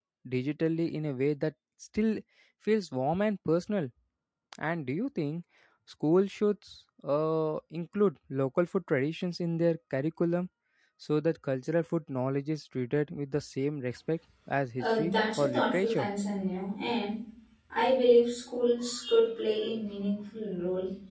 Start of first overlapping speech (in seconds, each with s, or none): 14.8 s